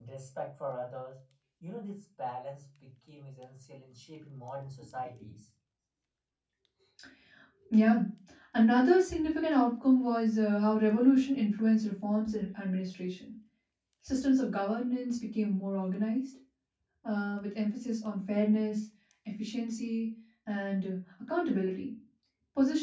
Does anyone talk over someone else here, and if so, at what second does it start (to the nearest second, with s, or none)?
none